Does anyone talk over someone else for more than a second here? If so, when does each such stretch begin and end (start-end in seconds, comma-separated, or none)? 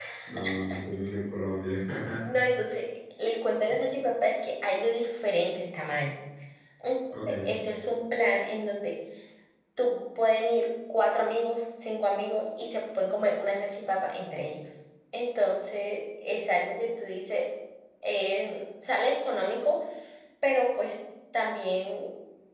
none